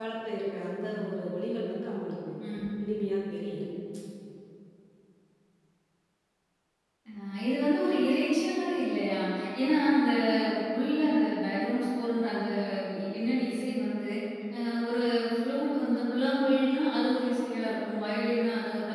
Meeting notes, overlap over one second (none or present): none